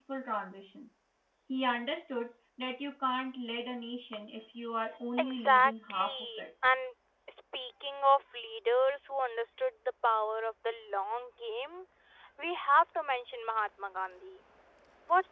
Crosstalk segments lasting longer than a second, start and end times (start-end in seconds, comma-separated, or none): 5.2-6.4